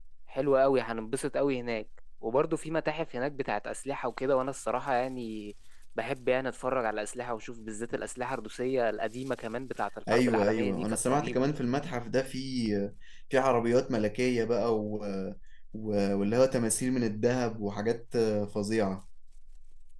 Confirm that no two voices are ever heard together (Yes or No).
No